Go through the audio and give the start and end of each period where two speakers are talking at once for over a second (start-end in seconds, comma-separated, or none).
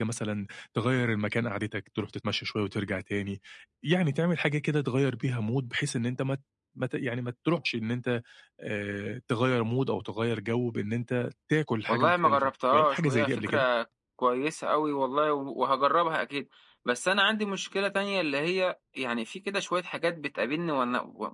11.9-13.6